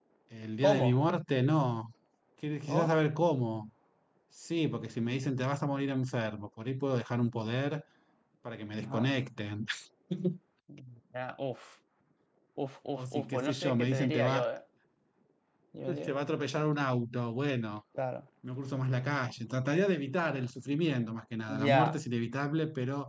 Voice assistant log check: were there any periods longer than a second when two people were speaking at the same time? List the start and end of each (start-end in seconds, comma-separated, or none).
13.0-14.5